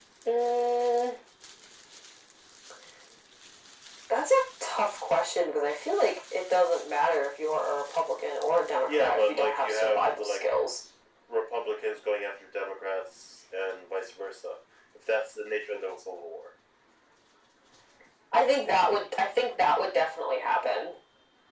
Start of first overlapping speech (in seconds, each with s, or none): 8.9 s